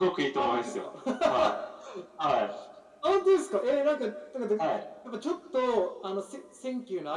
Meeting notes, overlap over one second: none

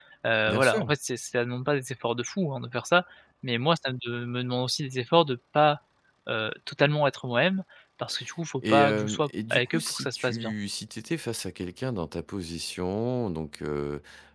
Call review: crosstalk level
present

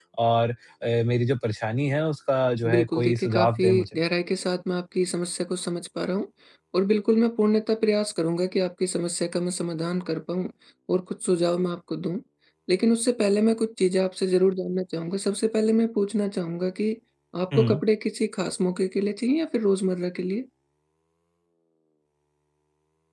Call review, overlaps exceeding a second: present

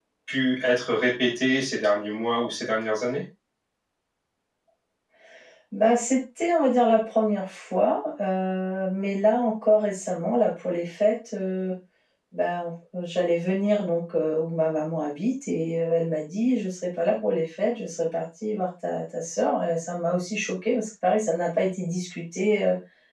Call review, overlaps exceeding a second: none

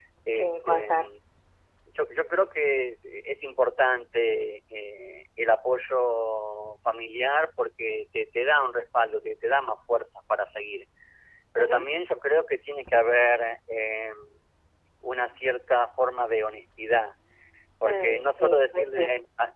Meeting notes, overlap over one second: present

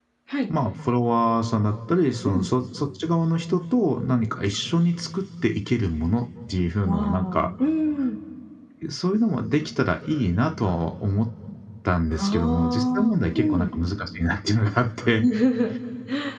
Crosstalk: present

